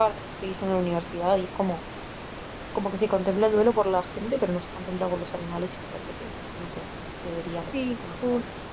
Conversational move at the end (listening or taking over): taking over